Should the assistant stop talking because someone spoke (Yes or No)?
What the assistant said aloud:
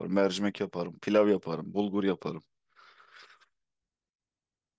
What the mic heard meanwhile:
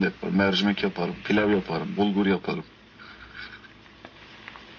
No